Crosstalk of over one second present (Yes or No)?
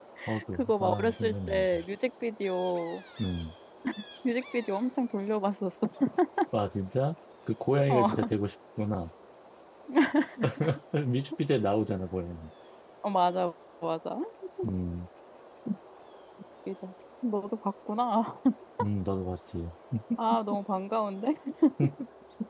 Yes